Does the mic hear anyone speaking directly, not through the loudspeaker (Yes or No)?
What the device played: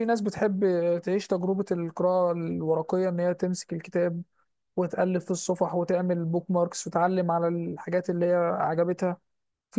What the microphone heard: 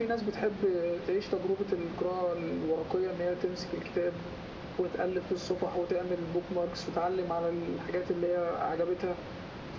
No